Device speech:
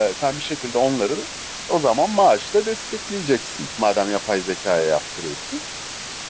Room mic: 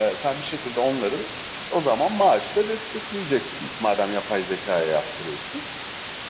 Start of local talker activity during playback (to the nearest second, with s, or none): none